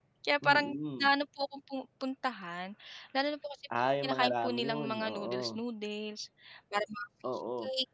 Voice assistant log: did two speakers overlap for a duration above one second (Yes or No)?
Yes